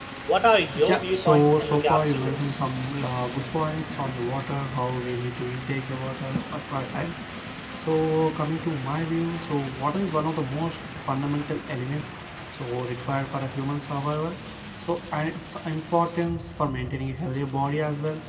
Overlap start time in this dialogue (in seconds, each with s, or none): 0.8 s